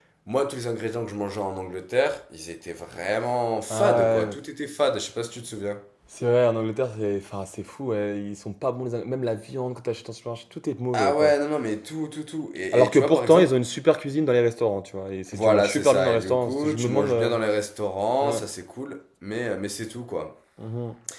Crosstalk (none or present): present